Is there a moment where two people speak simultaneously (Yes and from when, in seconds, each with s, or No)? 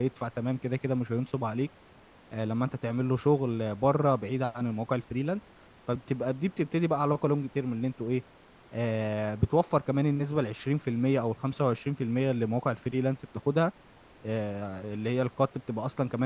No